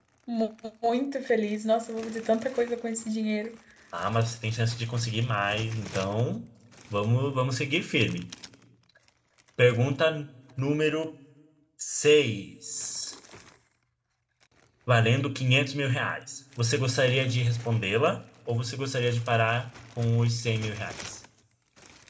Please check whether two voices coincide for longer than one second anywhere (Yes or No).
No